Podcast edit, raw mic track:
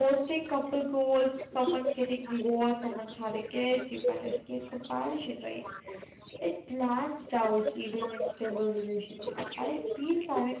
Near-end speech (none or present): present